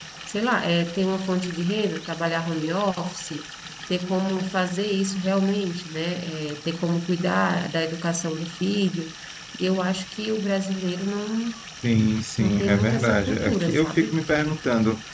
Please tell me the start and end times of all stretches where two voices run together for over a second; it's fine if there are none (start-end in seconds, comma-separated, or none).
12.4-14.2